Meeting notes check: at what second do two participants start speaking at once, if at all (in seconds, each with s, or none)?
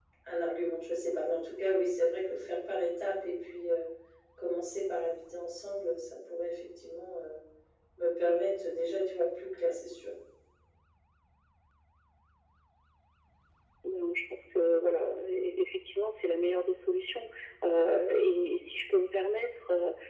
none